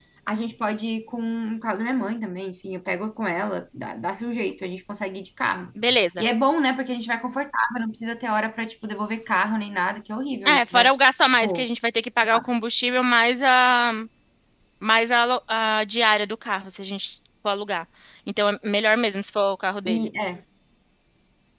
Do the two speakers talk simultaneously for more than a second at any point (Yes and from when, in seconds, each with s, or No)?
No